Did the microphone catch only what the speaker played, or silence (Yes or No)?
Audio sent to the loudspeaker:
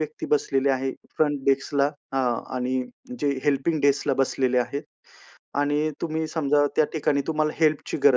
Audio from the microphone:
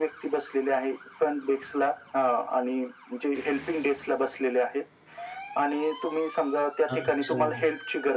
No